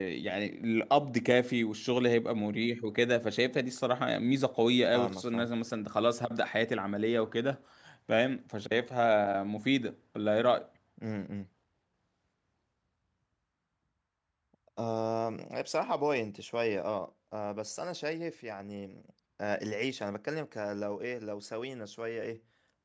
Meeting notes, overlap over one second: none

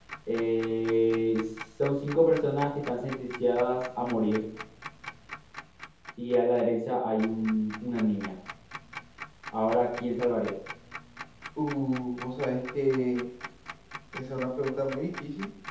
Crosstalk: none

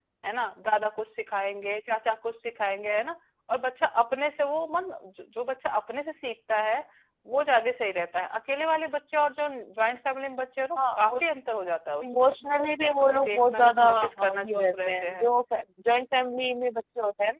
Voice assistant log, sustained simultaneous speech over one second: present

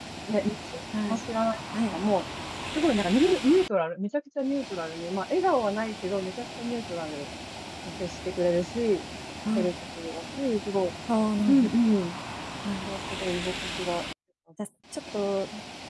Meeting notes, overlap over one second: none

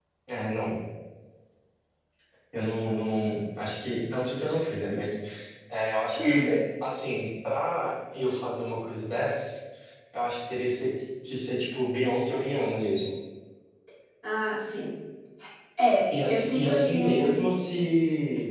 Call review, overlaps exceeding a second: present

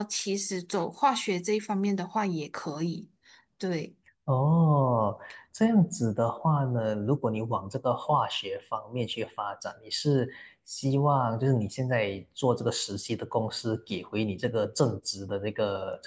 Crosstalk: none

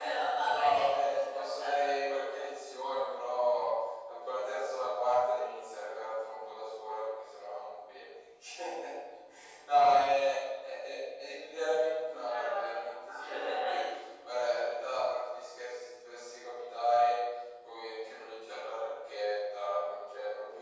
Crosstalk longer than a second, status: present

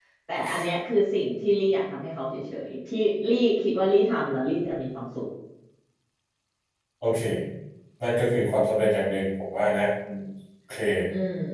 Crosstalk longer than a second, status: none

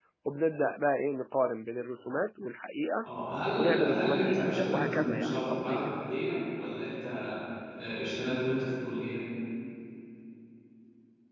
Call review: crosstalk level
present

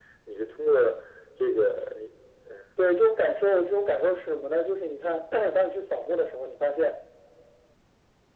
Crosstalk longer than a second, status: none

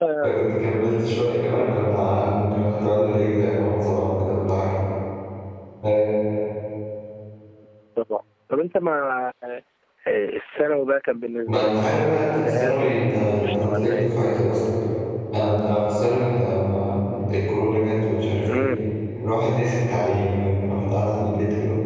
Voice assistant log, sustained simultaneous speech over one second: present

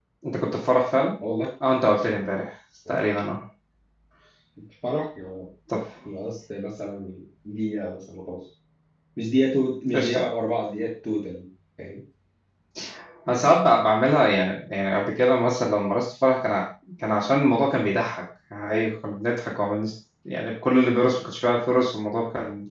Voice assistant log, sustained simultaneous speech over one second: none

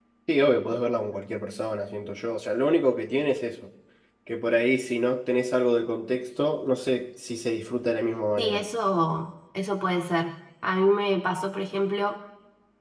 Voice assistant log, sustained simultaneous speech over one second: none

